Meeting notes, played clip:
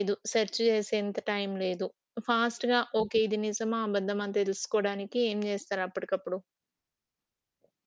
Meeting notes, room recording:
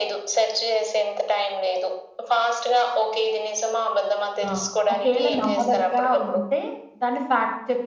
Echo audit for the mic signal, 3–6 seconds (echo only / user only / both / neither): both